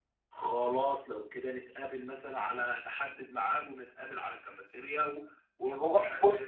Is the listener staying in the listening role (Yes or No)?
No